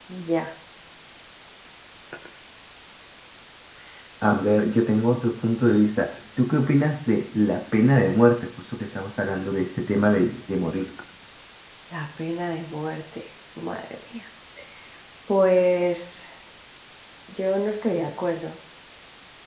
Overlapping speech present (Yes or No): No